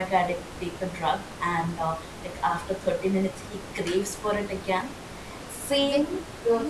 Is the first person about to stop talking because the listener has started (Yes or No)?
Yes